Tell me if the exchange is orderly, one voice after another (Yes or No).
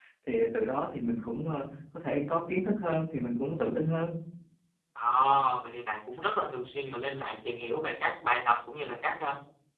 Yes